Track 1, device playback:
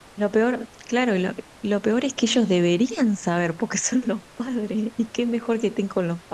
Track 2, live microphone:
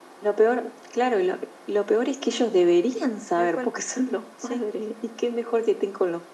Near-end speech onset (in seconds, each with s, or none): 3.3 s